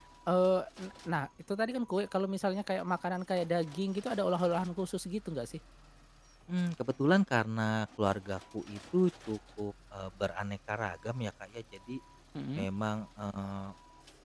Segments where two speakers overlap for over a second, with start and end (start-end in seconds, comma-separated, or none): none